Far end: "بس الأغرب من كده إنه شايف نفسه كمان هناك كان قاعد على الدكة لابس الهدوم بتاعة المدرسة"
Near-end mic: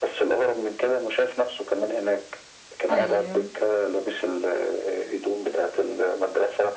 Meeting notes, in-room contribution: present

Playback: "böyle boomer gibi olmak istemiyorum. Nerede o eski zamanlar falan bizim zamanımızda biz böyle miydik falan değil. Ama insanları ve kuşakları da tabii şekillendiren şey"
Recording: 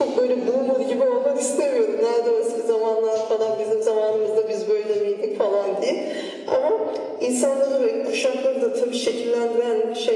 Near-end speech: none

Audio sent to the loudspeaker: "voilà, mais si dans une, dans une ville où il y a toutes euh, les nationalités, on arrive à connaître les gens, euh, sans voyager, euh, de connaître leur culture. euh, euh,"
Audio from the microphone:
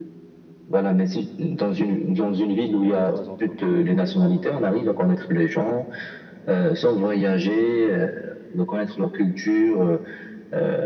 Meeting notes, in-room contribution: present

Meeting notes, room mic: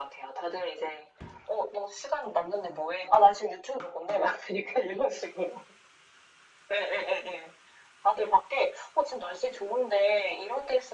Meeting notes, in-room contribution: none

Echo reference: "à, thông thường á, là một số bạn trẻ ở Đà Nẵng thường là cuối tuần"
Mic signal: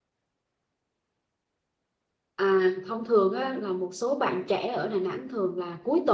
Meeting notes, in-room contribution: none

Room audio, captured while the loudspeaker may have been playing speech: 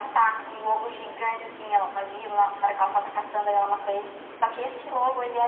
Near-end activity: none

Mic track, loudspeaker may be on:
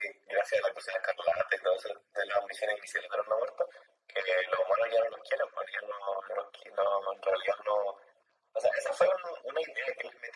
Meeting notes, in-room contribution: none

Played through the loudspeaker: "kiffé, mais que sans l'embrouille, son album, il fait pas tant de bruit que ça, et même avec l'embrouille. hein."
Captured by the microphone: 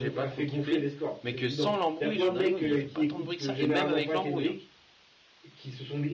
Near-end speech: present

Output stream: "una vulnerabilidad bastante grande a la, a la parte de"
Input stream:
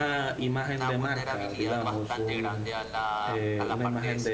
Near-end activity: present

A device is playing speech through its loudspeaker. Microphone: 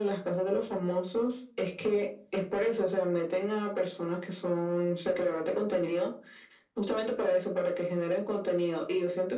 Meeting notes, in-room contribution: none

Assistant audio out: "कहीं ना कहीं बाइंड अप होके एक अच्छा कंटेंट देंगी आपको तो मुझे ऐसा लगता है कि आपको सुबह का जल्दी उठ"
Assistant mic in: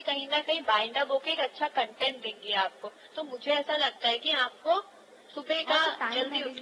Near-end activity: present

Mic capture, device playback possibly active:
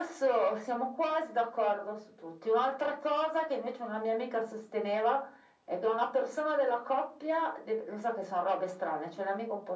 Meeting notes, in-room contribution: none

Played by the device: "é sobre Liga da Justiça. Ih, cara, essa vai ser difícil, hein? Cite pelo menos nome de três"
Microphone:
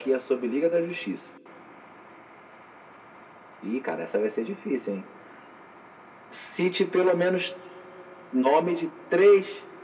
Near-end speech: none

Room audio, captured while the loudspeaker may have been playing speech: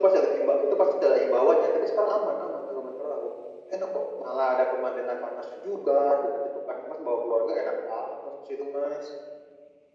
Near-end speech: none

